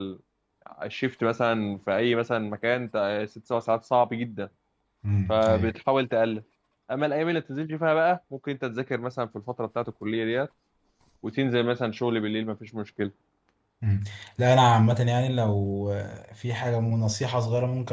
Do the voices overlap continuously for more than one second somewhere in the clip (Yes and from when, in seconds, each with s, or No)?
No